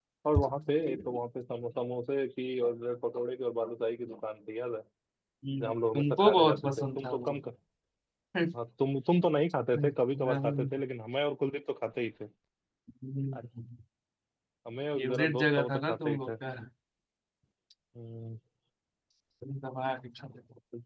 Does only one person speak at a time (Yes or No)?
No